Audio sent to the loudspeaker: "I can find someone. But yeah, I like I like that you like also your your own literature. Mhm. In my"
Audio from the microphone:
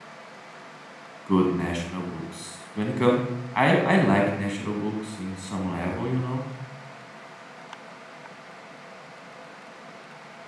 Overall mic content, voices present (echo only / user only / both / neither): user only